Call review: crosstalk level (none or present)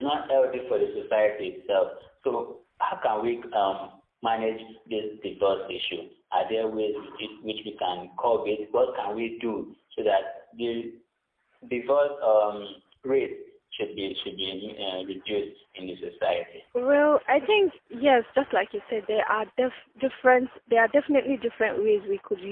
none